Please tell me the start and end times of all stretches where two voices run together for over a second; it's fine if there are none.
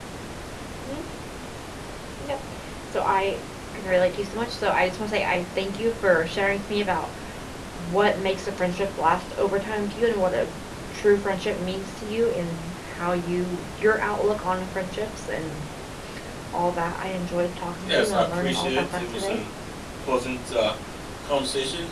17.8-19.4

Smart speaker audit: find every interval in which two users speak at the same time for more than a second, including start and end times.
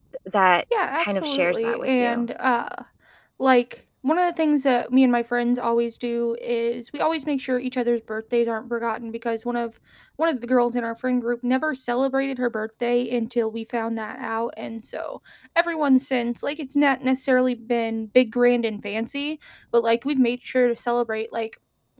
1.0-2.3

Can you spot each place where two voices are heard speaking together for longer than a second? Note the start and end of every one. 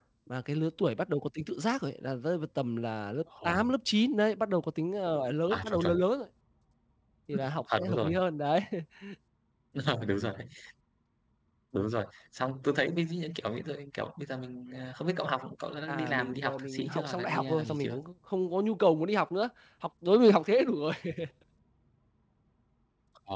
15.9-18.0

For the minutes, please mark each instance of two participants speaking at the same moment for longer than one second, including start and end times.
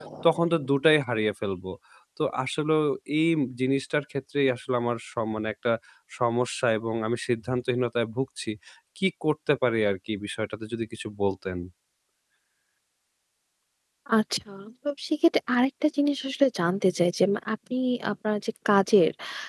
none

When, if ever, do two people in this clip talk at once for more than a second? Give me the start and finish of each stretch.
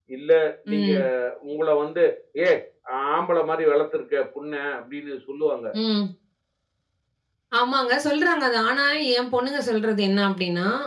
none

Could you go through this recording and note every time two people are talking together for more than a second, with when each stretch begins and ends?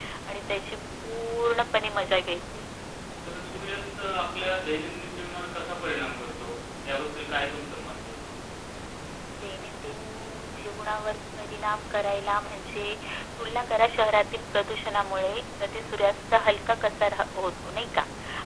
none

